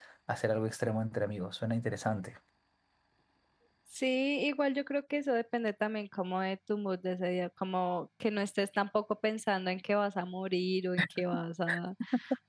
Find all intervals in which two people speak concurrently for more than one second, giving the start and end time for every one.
none

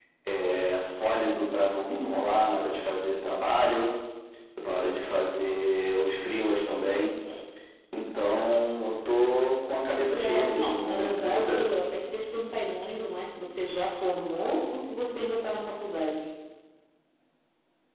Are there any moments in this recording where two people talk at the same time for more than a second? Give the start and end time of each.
9.9-11.6

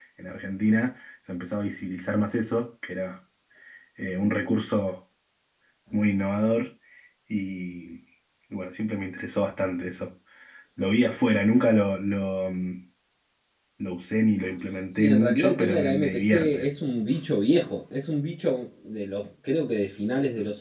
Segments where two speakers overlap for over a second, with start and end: 14.9-16.7

